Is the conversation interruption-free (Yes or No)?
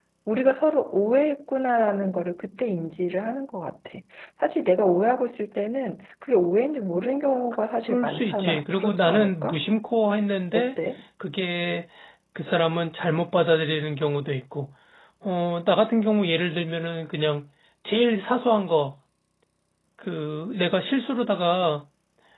No